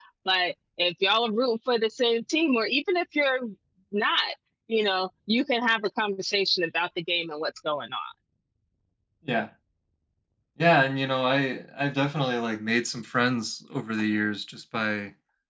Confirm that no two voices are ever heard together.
Yes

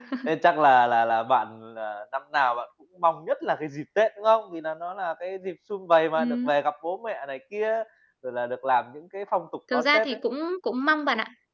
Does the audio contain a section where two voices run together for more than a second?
No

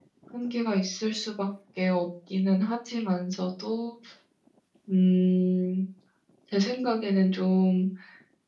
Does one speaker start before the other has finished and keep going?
No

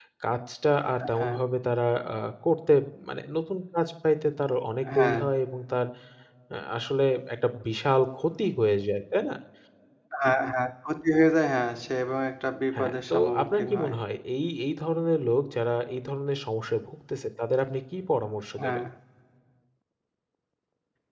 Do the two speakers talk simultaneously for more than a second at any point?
Yes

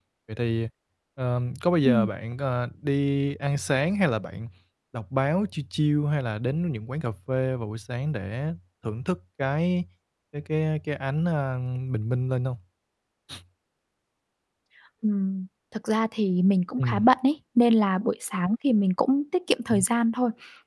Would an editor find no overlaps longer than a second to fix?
Yes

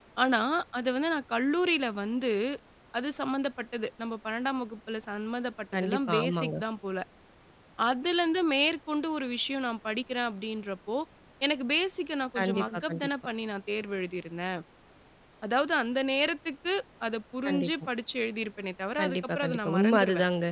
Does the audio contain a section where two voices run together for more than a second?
Yes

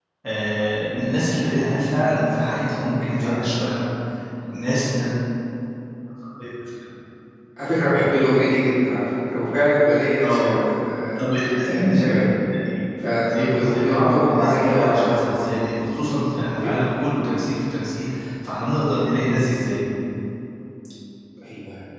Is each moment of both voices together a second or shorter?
No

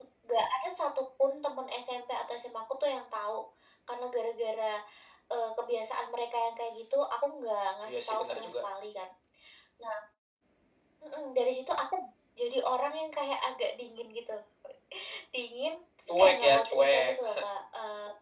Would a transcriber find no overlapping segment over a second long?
No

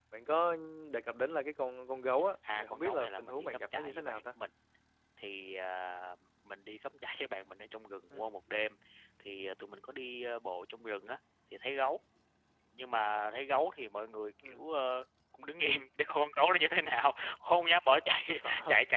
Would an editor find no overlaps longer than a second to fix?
No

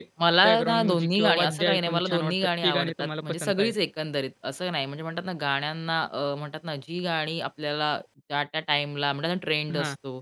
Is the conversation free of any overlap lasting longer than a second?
No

